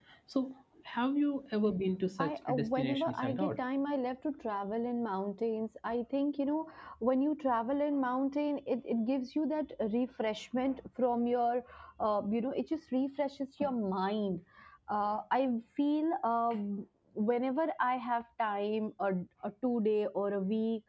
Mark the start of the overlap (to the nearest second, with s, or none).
2 s